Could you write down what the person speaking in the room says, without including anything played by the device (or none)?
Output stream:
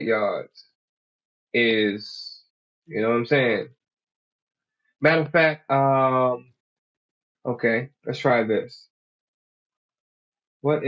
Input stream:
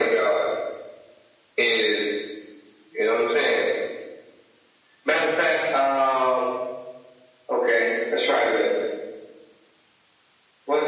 none